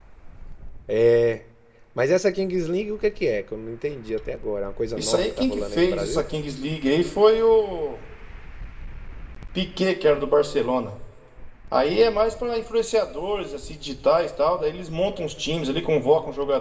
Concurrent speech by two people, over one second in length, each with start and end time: 5.0-6.2

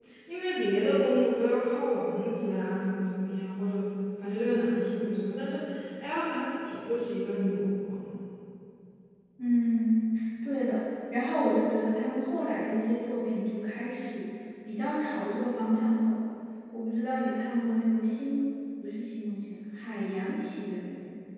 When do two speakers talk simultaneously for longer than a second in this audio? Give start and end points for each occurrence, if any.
none

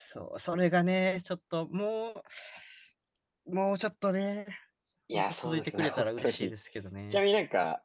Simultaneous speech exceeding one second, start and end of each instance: 5.1-6.5

